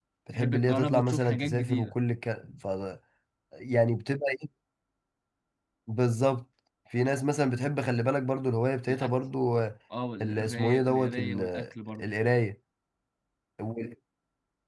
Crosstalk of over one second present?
Yes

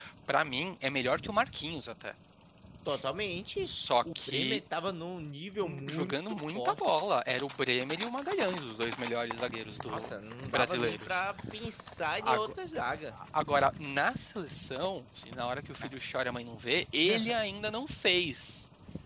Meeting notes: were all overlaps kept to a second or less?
No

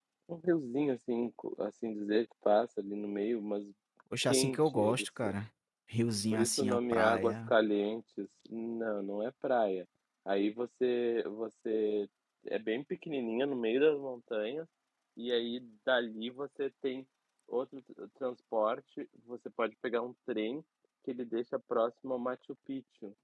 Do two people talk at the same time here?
Yes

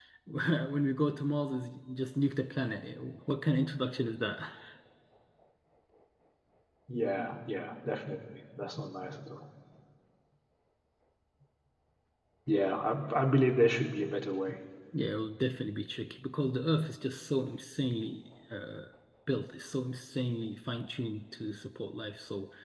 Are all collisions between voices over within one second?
Yes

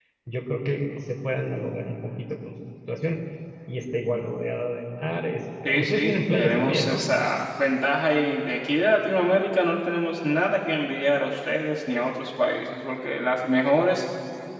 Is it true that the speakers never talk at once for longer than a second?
No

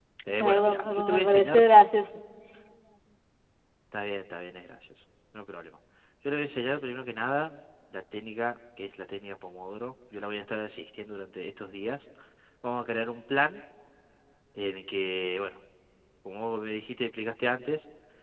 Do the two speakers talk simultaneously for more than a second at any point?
Yes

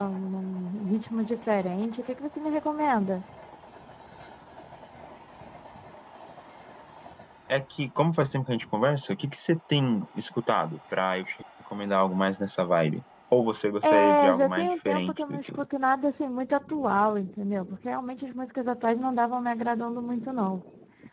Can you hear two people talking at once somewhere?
Yes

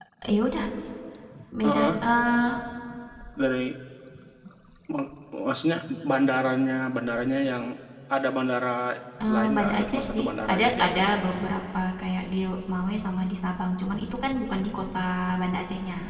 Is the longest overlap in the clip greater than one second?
Yes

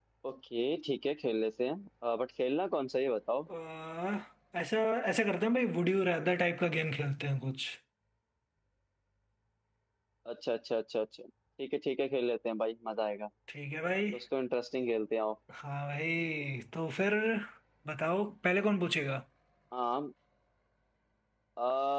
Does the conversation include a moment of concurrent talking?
No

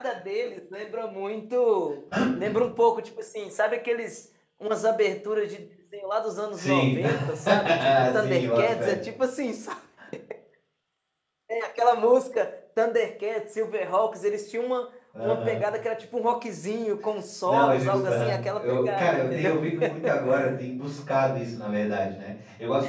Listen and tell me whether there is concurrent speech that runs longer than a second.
Yes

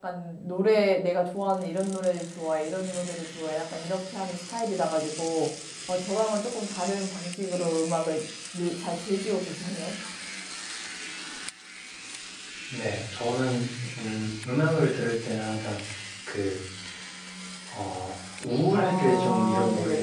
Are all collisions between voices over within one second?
No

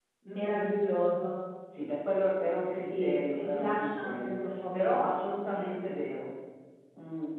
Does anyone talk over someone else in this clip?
Yes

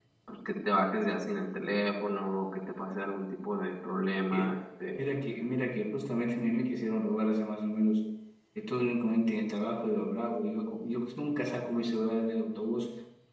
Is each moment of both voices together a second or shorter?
Yes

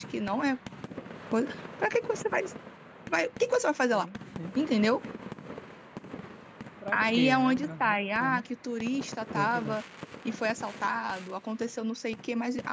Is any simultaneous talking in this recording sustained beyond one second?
Yes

